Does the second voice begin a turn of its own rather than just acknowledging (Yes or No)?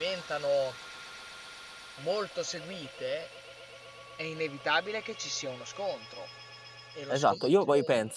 Yes